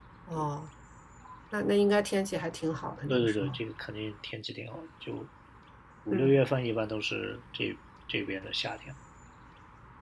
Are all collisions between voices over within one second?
Yes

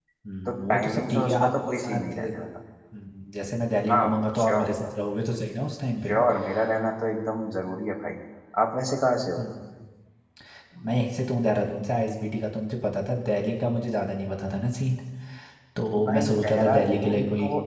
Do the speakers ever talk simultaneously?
Yes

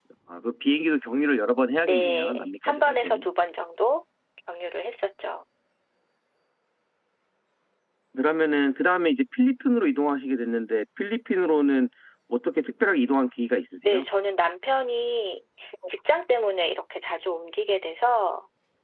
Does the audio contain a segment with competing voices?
Yes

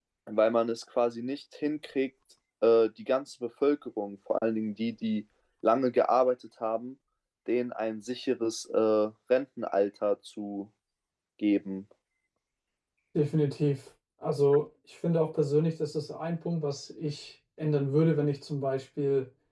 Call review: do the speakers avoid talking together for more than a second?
Yes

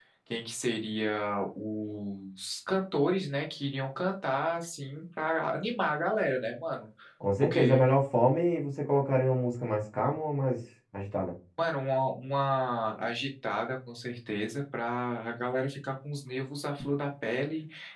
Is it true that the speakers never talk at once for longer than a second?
Yes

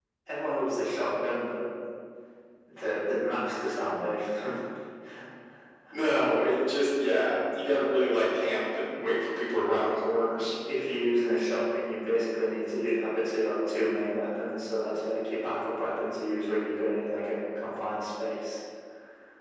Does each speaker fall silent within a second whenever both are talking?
Yes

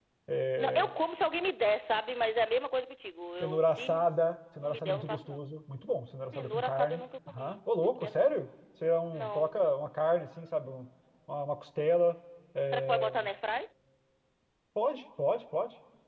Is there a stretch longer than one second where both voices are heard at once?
Yes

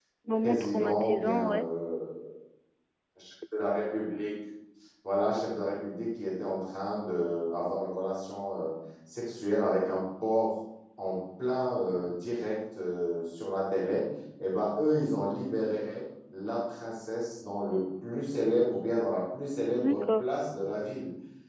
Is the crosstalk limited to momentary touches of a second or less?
No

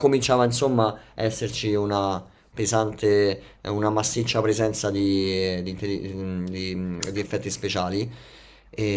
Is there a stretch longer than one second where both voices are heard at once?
No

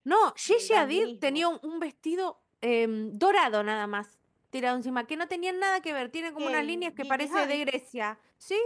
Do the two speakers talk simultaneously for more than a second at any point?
Yes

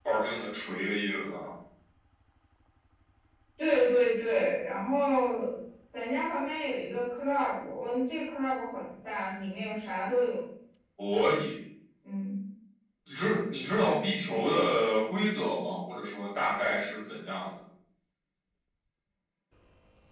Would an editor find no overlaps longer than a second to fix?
Yes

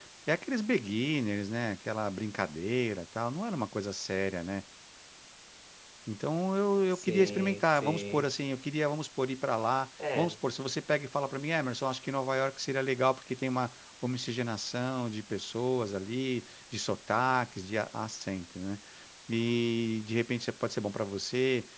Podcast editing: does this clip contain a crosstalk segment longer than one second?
Yes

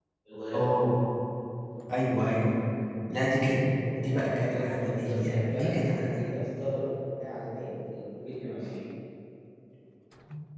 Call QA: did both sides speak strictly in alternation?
No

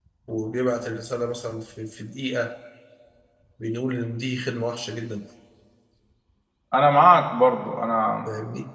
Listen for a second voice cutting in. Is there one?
No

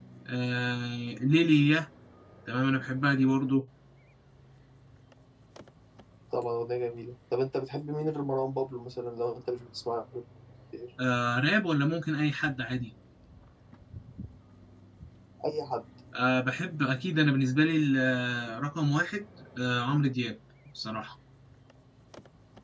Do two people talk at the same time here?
No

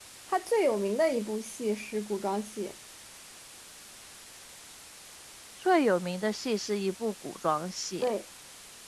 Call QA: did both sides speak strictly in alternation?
Yes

